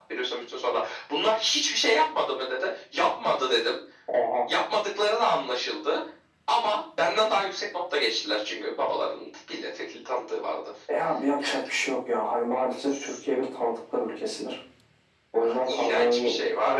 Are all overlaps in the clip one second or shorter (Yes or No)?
No